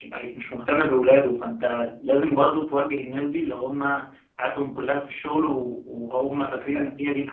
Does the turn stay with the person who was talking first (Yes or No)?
Yes